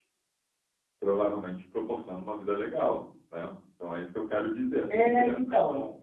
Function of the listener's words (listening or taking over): taking over